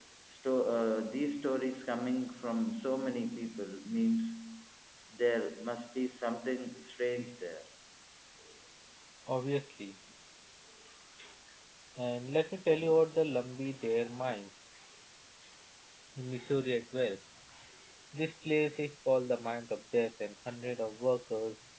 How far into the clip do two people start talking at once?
none

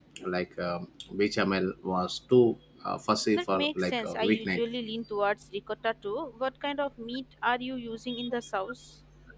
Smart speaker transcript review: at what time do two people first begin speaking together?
3 s

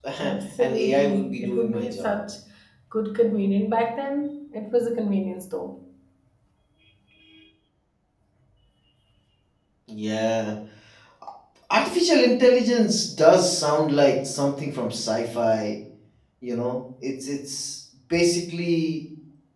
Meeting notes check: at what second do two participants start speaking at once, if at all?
1 s

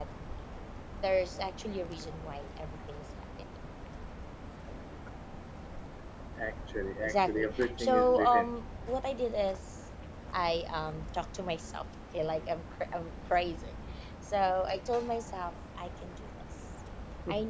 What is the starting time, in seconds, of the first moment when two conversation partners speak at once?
7 s

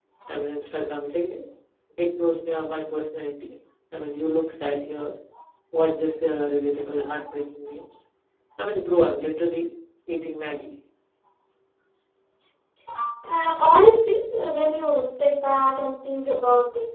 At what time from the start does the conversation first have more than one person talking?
none

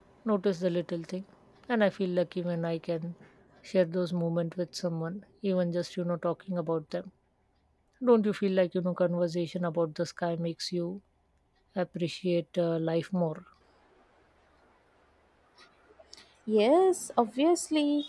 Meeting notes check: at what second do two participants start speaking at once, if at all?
none

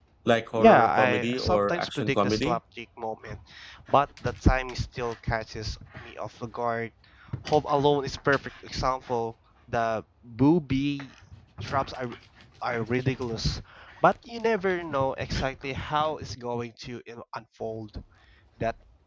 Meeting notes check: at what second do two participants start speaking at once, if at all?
1 s

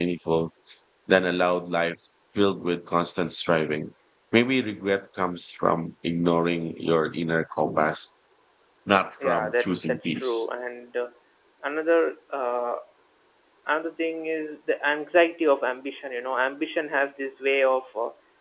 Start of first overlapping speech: 9 s

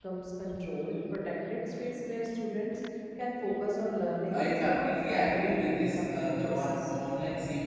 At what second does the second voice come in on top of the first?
4 s

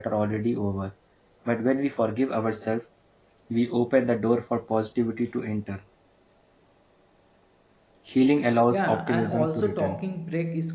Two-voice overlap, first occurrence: 9 s

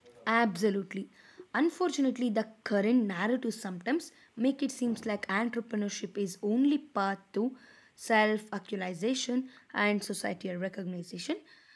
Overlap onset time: none

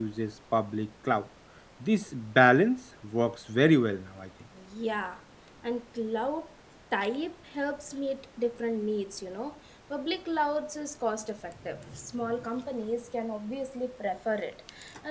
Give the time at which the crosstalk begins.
none

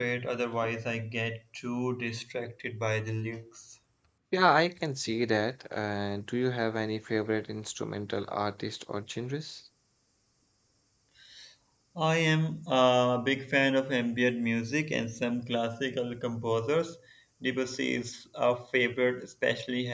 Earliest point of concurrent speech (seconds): none

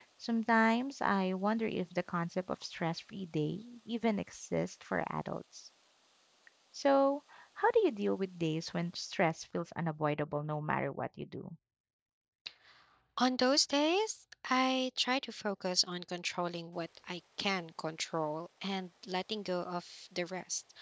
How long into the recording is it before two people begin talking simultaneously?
none

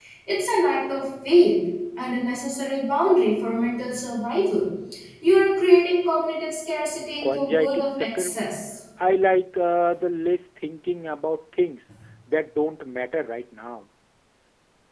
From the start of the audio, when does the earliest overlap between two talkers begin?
7 s

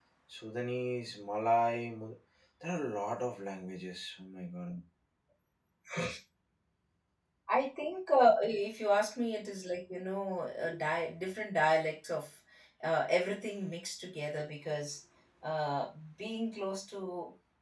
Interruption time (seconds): none

